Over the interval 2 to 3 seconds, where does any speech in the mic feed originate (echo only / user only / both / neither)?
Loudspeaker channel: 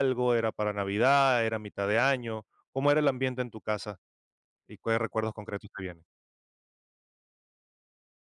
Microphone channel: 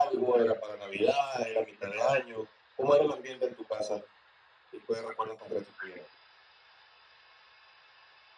echo only